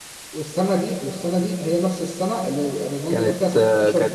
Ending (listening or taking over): taking over